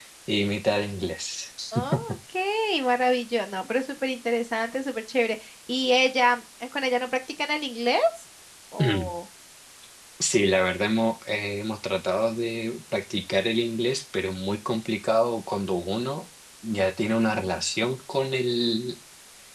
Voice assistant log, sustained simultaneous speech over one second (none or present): none